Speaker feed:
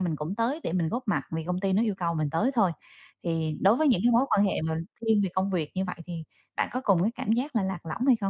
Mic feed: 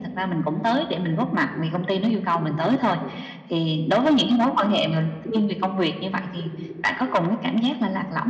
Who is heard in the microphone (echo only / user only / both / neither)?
echo only